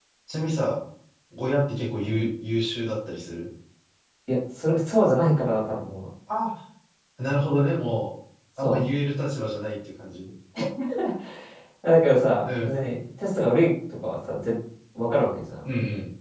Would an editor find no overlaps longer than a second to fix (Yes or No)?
Yes